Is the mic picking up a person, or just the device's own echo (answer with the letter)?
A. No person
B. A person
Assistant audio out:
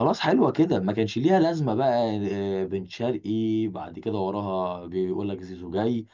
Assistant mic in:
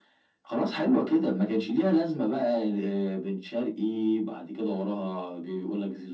A